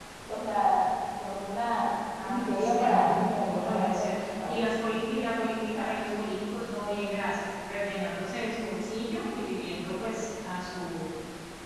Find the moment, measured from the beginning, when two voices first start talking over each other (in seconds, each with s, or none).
2.2 s